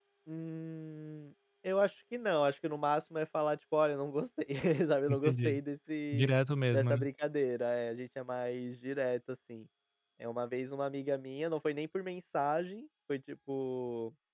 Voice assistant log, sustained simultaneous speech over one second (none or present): none